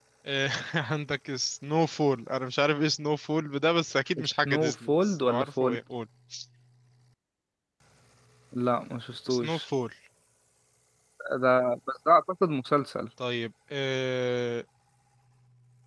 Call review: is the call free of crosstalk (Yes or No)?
No